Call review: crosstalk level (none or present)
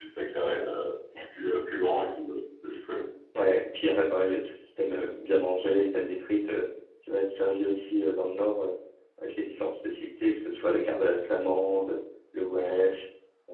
none